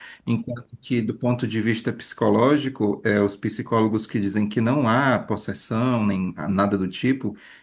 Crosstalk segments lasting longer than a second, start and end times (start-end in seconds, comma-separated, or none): none